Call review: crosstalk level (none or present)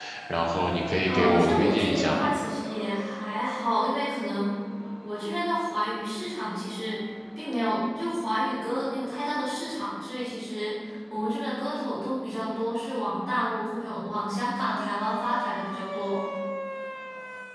present